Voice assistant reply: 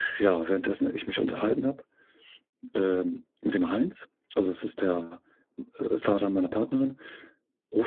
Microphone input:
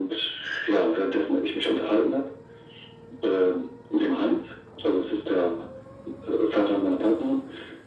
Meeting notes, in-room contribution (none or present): none